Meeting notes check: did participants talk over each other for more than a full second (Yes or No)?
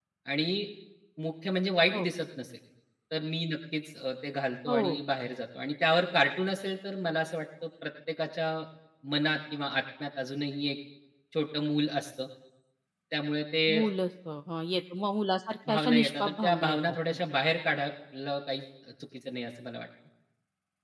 Yes